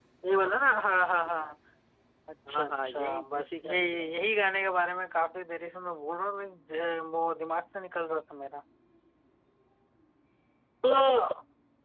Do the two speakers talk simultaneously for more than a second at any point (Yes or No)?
Yes